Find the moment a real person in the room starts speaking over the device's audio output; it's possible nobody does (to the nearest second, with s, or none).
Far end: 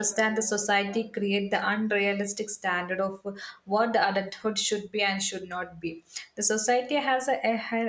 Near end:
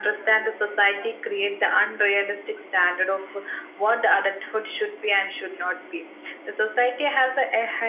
none